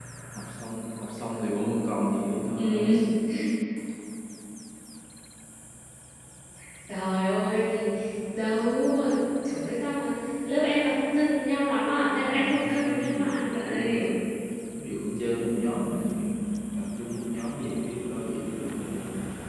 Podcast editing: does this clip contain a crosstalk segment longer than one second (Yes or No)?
Yes